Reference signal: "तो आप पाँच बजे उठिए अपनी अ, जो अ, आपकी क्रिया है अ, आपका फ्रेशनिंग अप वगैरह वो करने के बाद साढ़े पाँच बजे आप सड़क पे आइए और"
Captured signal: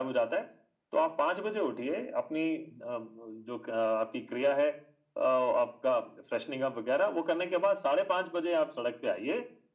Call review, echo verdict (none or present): present